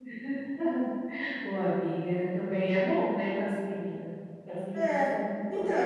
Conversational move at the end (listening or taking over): taking over